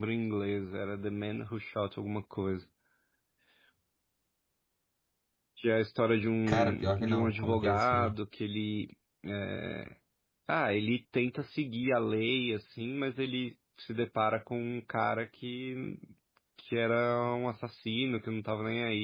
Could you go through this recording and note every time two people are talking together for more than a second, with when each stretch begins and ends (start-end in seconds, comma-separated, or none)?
6.5-8.1